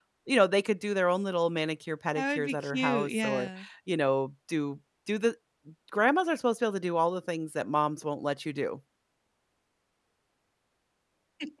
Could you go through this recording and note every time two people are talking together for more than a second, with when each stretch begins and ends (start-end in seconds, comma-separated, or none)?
2.2-3.5